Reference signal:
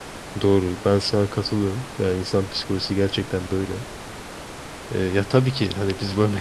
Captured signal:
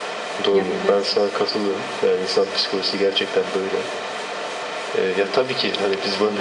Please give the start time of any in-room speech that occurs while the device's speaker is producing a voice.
0.5 s

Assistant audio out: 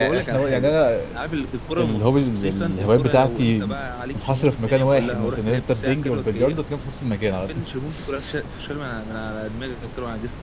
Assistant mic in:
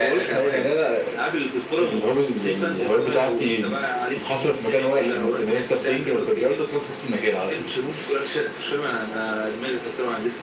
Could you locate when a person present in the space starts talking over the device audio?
none

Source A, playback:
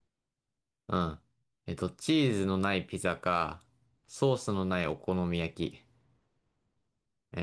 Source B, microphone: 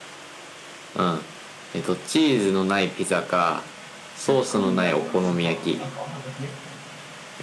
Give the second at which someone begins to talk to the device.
4.2 s

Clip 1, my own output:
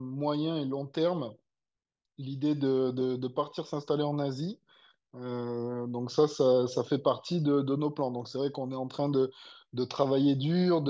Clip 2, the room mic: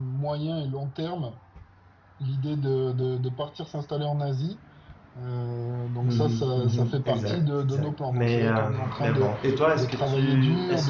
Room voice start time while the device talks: 6.0 s

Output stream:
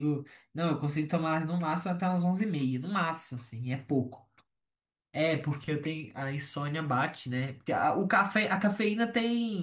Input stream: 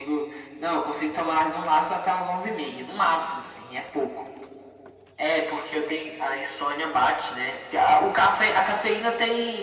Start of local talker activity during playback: none

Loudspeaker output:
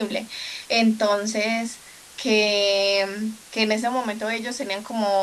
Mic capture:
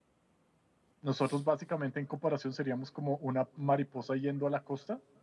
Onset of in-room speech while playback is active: 1.0 s

